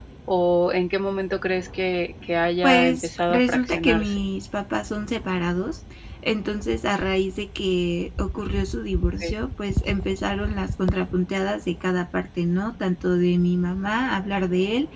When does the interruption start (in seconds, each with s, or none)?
2.6 s